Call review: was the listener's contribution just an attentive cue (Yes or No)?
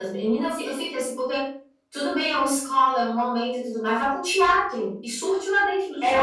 No